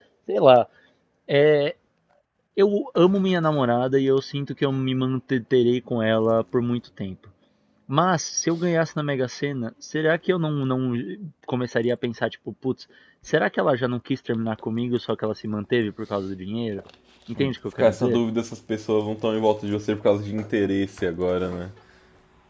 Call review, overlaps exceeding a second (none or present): none